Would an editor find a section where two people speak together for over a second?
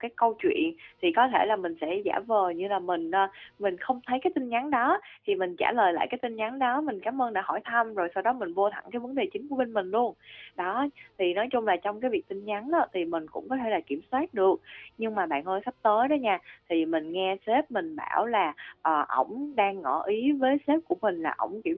No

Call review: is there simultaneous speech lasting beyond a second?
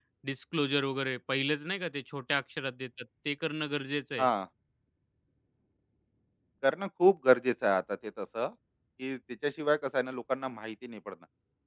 No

